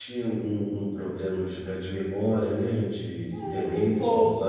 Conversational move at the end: taking over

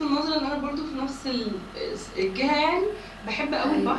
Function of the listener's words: listening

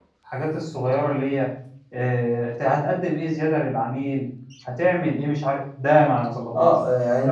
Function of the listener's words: taking over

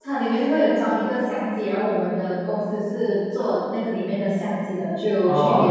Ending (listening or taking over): listening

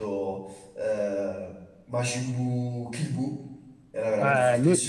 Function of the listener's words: taking over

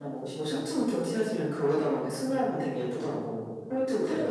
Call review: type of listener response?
taking over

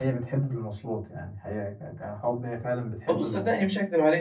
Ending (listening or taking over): taking over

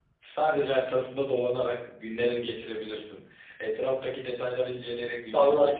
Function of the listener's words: taking over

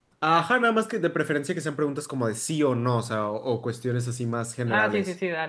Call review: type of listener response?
taking over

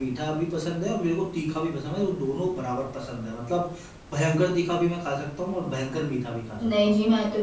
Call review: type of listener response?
taking over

